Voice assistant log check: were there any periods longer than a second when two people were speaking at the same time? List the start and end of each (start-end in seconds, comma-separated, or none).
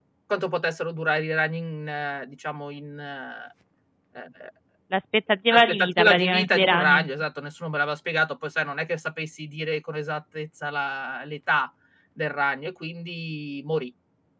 5.5-7.0